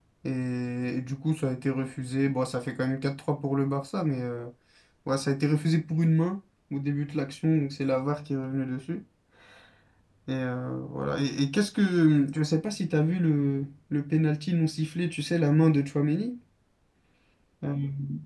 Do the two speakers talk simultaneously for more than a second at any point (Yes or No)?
No